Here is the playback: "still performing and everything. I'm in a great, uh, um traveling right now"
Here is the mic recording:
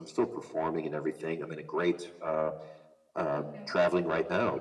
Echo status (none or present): present